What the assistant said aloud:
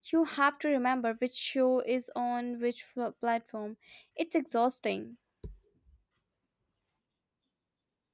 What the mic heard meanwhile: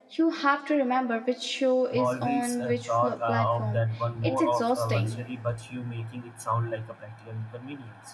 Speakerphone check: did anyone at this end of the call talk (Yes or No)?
Yes